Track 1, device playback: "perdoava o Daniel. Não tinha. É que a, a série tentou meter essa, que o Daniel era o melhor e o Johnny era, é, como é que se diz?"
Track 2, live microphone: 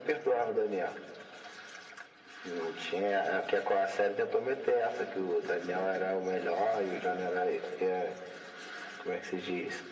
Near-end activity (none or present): none